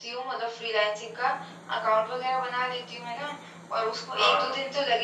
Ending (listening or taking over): listening